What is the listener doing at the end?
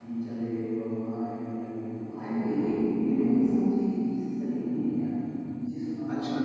taking over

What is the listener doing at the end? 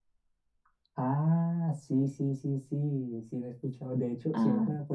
listening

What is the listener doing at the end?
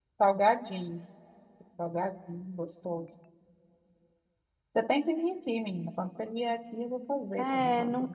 taking over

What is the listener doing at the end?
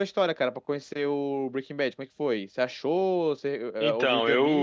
taking over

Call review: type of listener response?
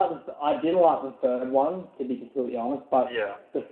listening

